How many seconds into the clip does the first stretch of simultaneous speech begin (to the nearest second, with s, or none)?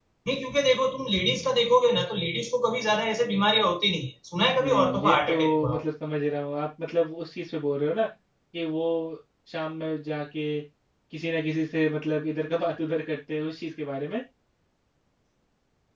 5 s